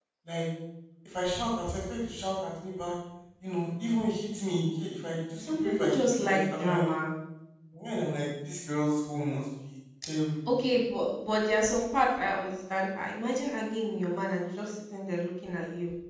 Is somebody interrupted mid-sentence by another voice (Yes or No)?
Yes